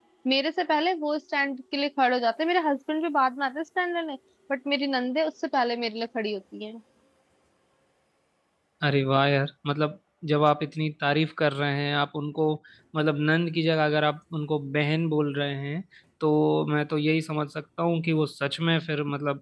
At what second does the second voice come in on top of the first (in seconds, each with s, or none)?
none